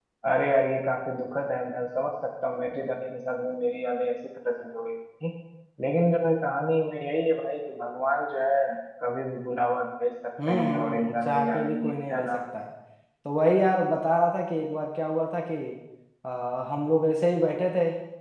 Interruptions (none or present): present